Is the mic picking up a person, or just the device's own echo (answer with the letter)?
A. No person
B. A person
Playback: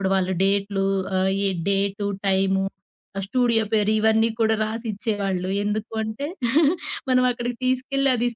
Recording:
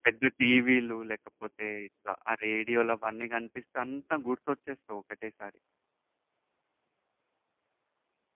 B